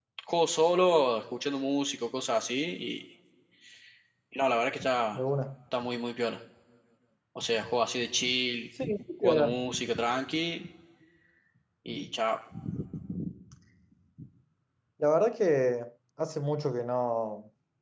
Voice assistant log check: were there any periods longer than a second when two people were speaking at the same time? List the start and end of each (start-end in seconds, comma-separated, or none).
none